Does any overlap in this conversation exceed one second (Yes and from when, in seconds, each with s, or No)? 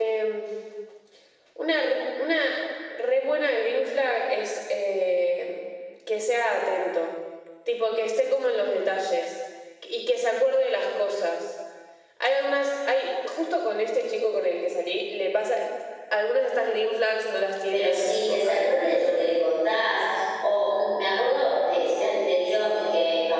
Yes, from 17.7 s